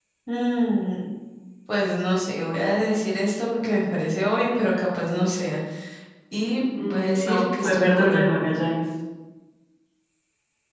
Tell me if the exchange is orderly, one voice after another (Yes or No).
No